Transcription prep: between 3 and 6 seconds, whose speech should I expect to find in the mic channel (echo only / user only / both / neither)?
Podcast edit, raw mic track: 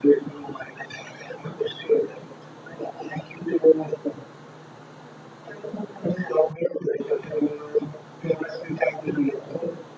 echo only